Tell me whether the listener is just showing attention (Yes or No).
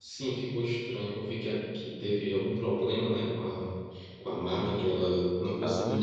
No